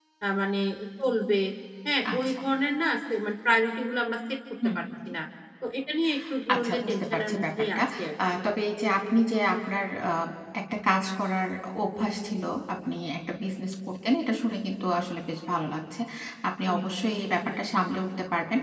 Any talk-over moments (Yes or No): Yes